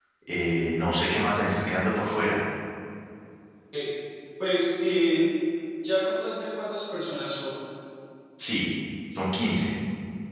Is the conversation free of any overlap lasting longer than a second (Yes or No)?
Yes